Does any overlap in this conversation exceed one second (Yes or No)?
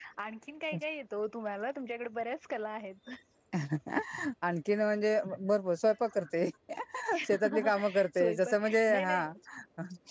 Yes